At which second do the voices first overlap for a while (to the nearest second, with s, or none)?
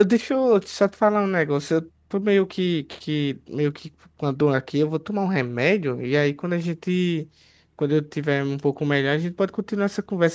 none